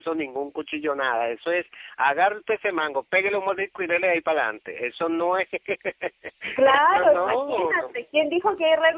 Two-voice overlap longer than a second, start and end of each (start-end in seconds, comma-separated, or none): 6.6-7.9